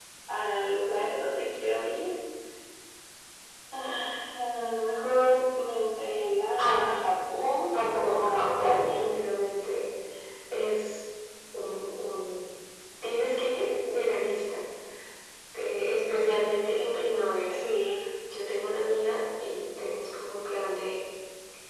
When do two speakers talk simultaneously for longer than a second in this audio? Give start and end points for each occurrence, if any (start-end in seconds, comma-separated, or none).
7.7-9.1